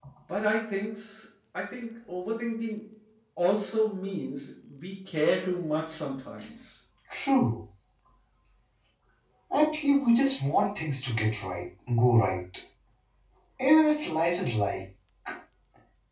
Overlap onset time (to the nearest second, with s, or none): none